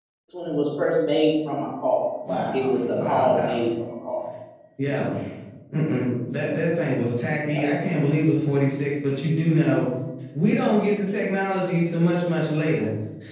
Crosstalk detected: Yes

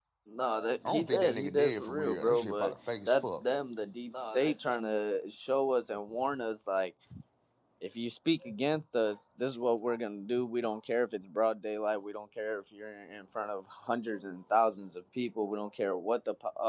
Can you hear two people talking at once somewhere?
Yes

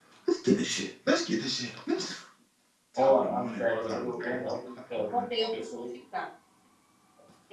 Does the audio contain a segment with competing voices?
Yes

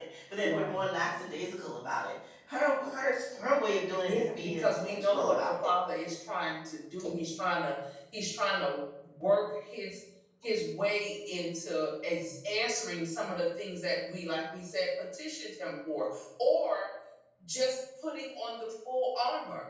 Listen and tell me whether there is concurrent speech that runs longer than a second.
Yes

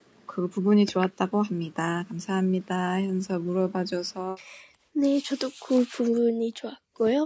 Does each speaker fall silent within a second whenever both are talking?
Yes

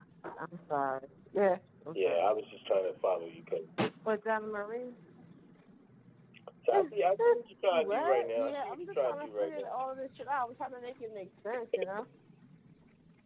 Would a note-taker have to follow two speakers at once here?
Yes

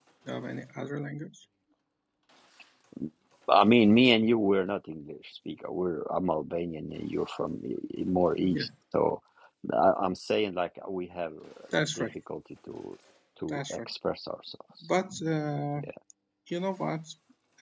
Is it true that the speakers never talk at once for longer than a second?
Yes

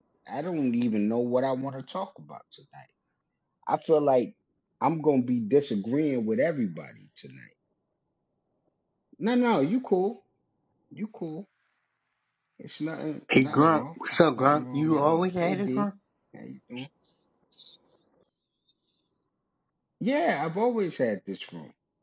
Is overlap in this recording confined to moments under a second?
No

